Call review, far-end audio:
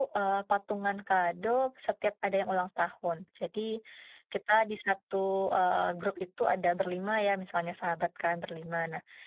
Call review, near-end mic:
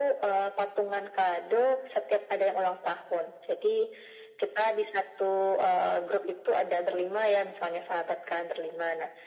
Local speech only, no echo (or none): none